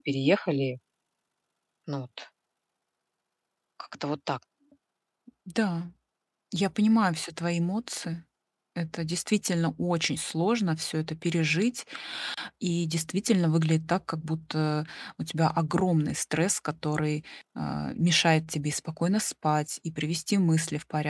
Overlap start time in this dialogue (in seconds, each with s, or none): none